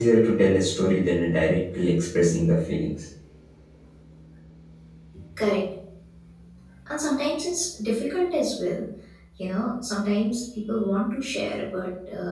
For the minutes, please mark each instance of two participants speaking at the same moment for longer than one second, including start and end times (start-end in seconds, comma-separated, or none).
none